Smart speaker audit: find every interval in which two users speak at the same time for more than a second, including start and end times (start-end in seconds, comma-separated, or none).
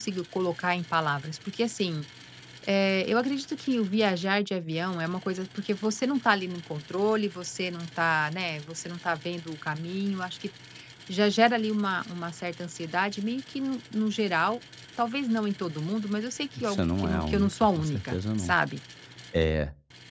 16.6-18.5